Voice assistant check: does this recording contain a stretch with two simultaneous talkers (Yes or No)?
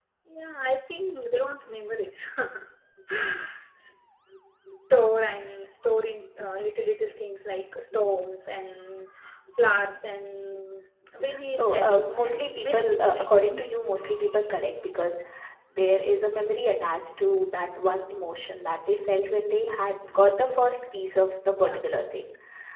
Yes